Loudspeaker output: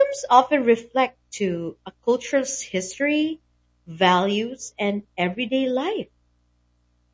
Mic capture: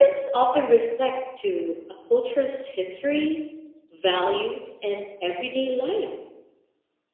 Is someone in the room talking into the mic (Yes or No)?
No